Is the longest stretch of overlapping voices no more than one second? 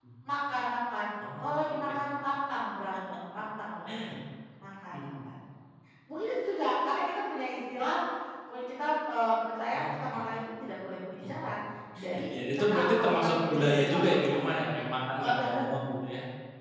No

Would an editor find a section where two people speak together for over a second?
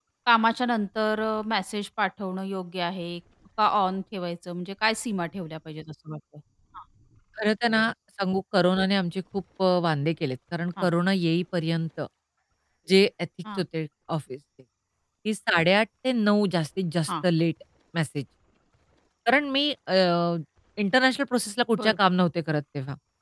No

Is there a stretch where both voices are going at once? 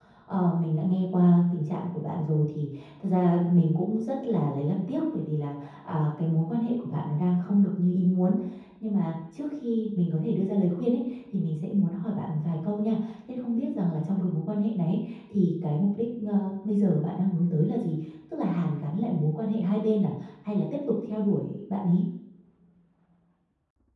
No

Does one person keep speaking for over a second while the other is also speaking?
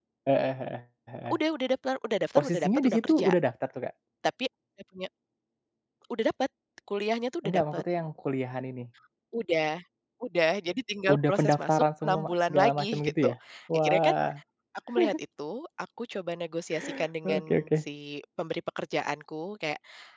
Yes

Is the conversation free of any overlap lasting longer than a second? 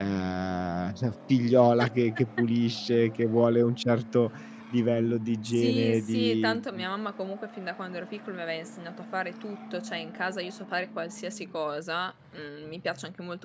No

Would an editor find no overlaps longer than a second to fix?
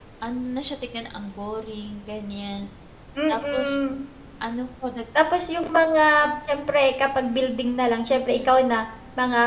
Yes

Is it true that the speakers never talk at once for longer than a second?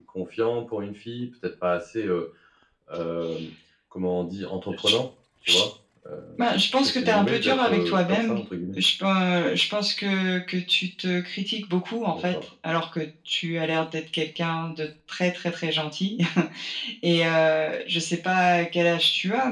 No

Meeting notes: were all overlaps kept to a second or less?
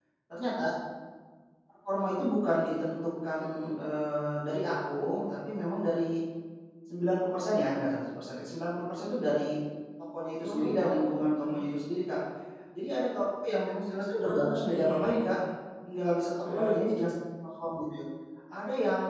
No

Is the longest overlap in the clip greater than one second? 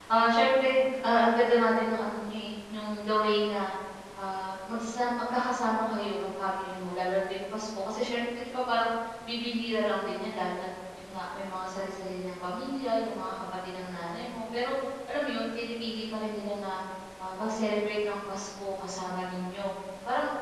No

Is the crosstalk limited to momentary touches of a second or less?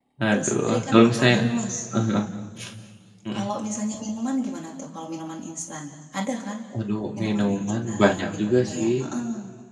No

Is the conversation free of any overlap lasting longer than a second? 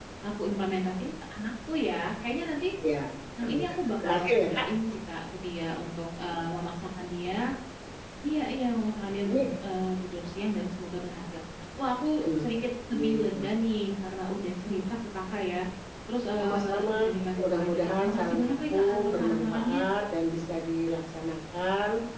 No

